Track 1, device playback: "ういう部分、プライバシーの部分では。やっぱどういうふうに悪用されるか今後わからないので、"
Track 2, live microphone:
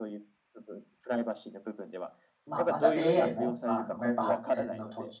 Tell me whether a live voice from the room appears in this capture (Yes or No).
Yes